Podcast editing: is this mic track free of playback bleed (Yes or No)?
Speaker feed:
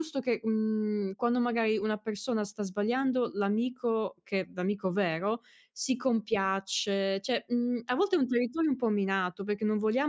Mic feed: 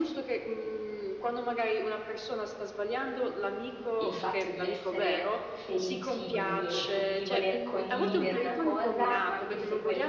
No